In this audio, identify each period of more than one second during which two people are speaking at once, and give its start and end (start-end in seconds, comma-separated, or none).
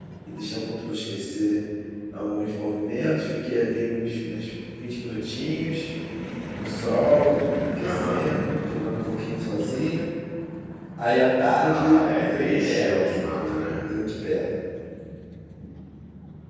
11.6-13.7